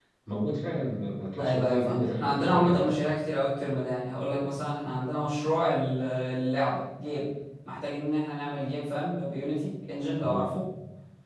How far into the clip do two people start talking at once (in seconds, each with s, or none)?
1.4 s